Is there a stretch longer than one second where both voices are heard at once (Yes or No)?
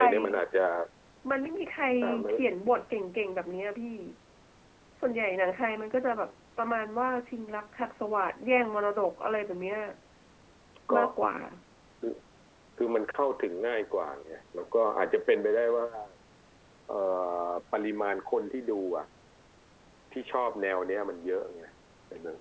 No